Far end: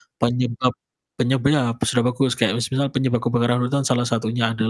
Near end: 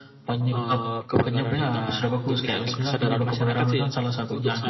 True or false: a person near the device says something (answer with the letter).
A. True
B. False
A